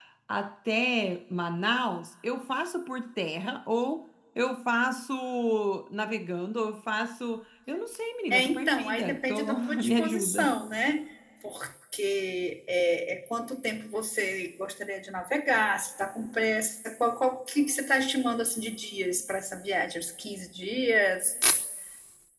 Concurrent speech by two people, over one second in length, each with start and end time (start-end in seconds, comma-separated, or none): 8.3-10.6